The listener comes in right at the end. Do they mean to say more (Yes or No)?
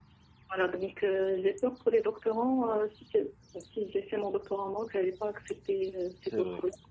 Yes